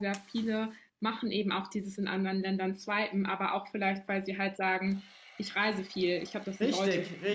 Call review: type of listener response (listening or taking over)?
taking over